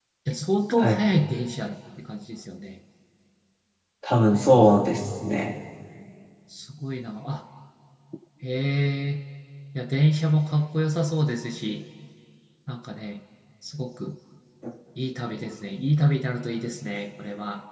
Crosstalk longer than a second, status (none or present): none